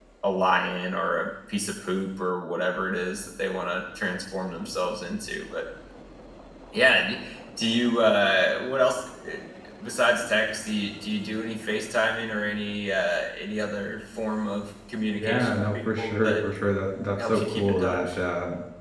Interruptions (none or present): present